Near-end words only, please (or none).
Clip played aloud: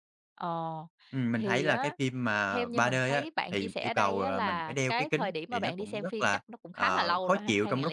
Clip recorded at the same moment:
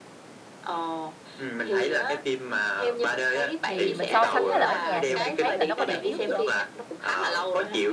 thì mình so sánh với là ở nhà thì mình thấy là nó có điểm yếu gì không?